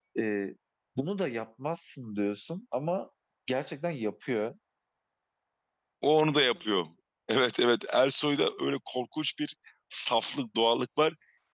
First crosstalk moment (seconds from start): none

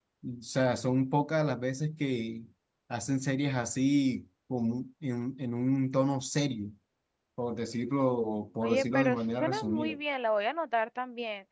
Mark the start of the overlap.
8.6 s

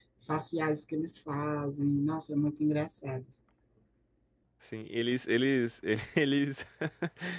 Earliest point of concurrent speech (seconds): none

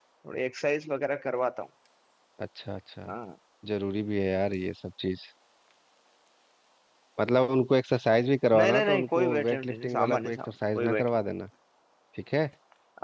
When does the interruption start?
8.5 s

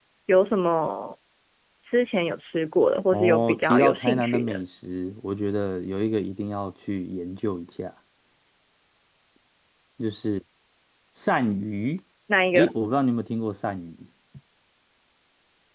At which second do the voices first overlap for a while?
3.1 s

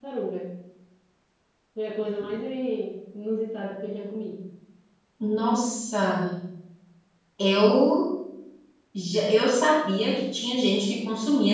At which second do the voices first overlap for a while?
none

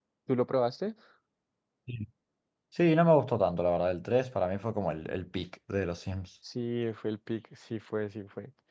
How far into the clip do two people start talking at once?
none

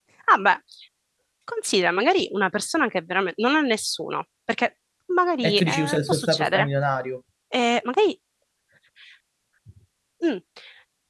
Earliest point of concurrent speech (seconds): 5.4 s

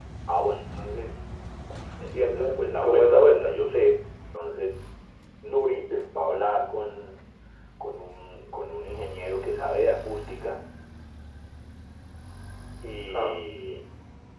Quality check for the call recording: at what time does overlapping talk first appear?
2.1 s

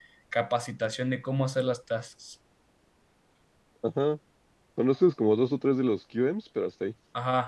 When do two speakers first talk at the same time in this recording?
none

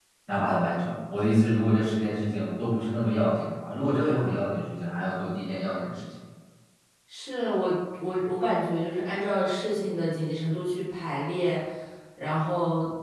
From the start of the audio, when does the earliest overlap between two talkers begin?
none

